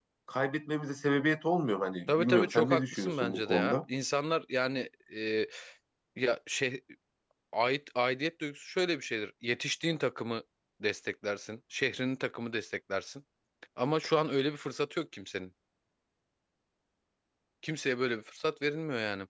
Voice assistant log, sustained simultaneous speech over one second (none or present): present